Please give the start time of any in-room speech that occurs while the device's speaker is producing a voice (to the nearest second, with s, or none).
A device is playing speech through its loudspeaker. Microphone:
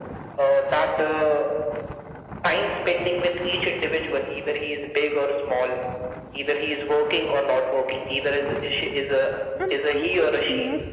10 s